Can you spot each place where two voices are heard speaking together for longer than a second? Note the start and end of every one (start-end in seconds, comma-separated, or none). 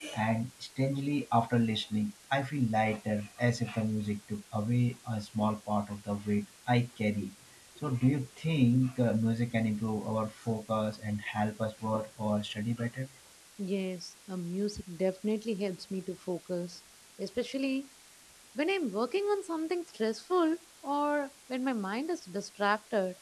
none